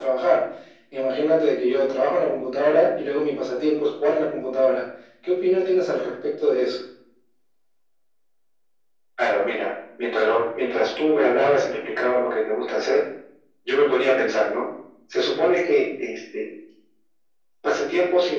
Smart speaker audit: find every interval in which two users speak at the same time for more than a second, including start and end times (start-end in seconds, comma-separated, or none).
none